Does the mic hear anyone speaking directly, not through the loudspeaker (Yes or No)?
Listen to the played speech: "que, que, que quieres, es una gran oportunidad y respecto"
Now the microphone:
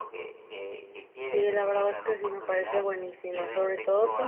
Yes